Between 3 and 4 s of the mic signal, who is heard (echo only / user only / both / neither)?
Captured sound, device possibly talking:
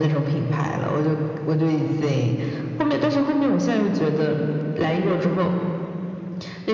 echo only